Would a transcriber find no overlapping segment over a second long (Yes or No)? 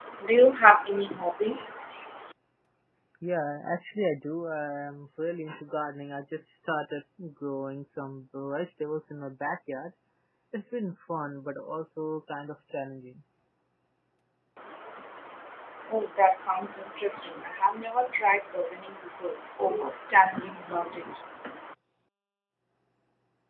Yes